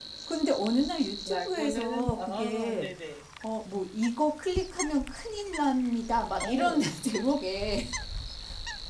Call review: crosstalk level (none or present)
present